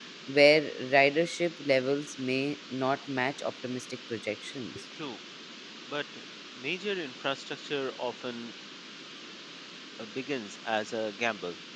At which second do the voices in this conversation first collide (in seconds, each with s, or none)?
none